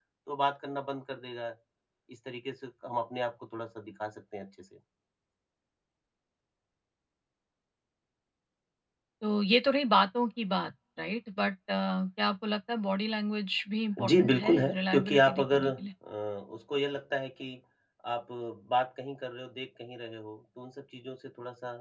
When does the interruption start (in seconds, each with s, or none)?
14.0 s